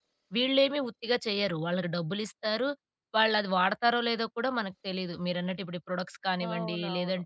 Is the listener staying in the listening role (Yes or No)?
Yes